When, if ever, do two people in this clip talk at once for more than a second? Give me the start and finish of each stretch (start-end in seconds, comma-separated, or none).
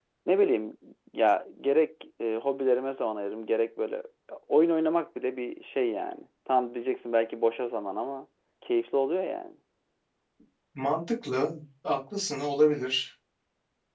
none